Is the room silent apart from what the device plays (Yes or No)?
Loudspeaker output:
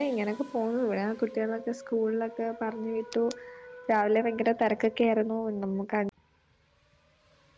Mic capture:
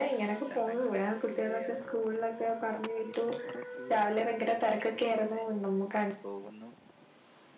No